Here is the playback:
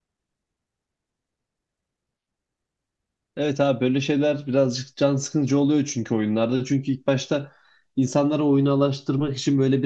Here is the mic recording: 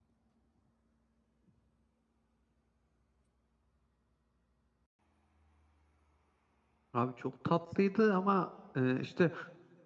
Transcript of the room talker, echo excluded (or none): Abi çok tatlıydı ama e, işte